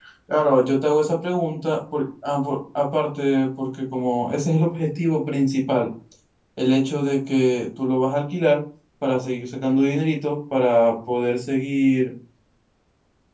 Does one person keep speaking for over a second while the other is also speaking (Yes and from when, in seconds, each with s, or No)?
No